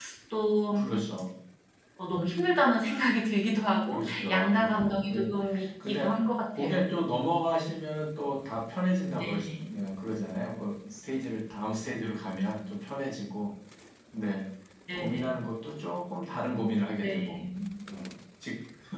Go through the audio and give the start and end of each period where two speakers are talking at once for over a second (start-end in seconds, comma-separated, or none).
3.9-5.3